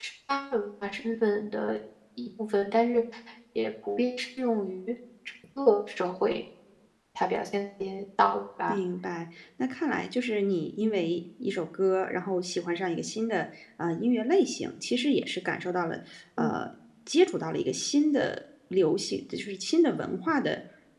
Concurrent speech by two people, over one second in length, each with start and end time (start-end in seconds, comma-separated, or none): none